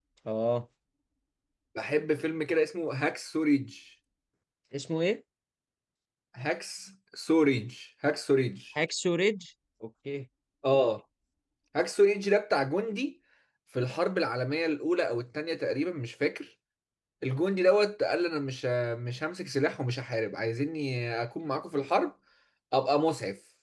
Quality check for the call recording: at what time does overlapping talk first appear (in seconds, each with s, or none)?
none